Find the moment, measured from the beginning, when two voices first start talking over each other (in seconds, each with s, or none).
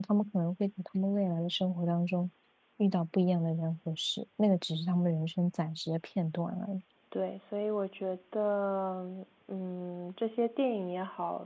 none